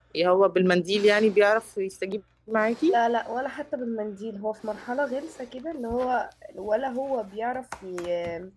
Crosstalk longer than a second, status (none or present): none